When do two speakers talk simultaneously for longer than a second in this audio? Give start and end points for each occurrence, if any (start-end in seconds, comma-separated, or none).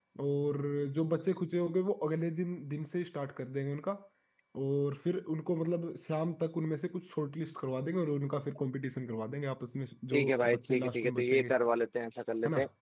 10.1-11.6